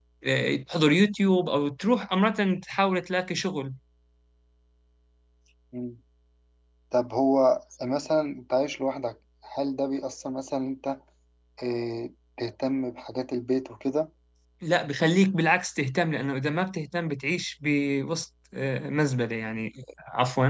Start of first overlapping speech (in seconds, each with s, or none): none